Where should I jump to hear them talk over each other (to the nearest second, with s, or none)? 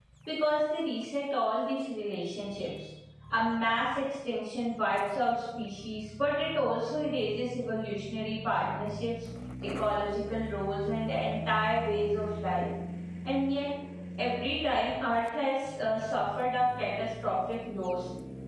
none